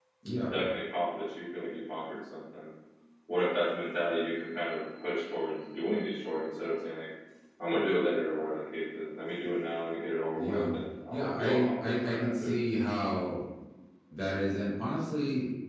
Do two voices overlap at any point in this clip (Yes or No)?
Yes